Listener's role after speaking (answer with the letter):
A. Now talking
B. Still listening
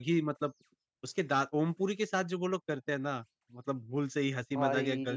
B